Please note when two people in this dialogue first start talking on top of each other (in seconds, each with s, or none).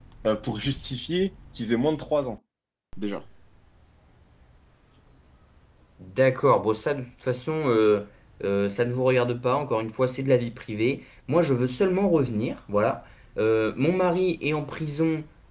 none